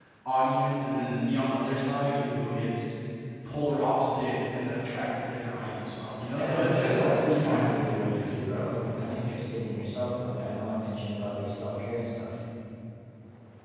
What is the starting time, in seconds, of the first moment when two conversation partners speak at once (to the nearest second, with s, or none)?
6 s